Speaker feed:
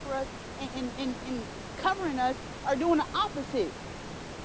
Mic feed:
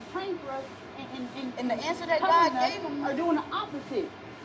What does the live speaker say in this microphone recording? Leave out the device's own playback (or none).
And the answer that God gave him,